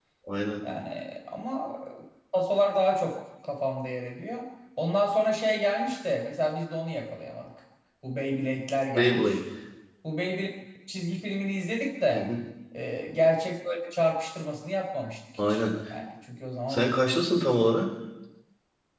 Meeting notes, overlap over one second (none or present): none